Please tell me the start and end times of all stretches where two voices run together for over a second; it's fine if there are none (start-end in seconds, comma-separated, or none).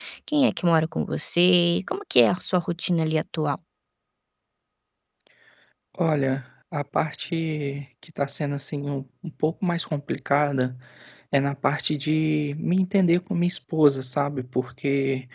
none